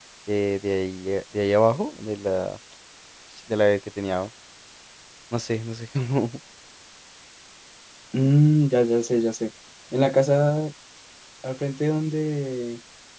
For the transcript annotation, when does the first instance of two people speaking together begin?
none

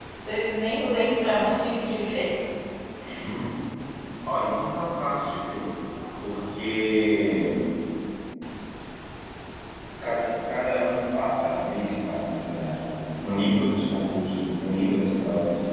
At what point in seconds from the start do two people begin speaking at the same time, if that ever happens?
none

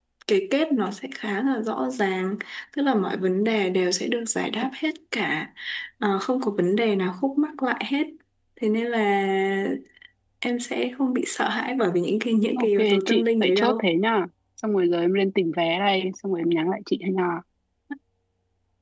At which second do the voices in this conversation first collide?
12.6 s

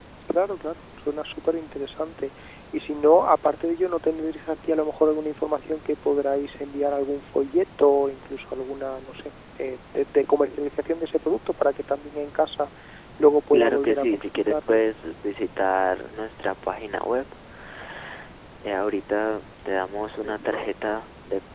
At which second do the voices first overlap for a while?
13.5 s

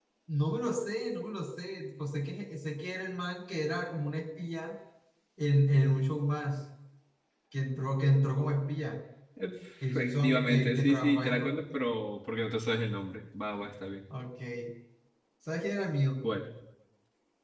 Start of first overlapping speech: 9.9 s

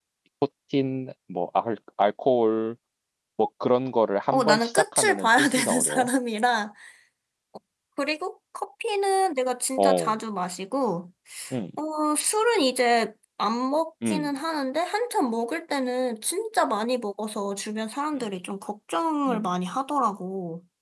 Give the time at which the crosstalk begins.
4.3 s

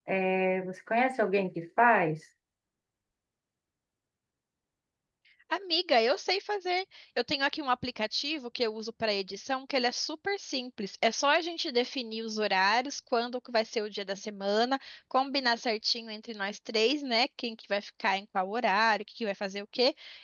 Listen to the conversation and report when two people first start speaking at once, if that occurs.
none

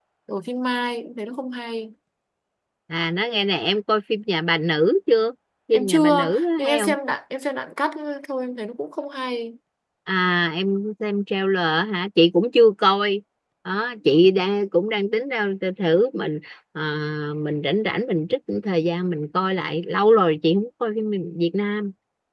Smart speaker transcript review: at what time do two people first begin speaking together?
5.7 s

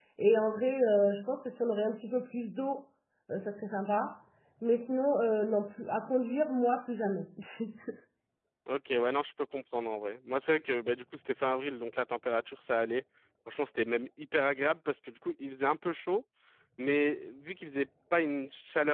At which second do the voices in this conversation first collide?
none

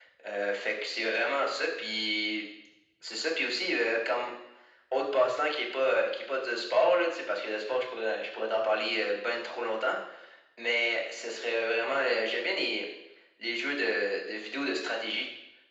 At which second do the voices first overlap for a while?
none

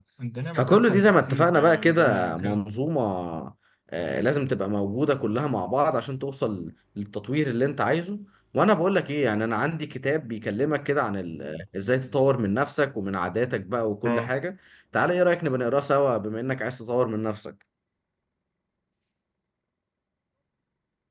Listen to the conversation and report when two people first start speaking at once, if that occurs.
0.5 s

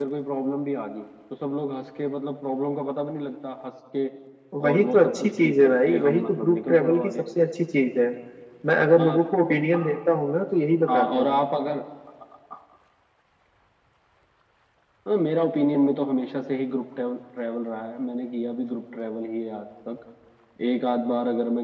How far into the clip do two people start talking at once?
4.7 s

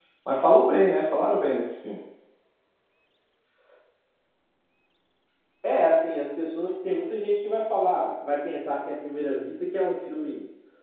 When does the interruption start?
none

